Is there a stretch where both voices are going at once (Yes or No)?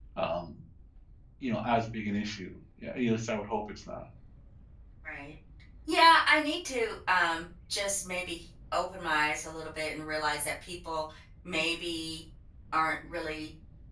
No